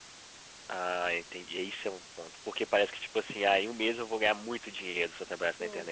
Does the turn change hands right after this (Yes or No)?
Yes